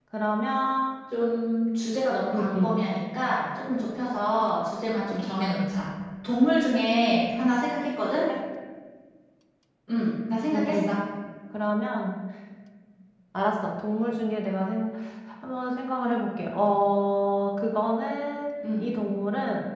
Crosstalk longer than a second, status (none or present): none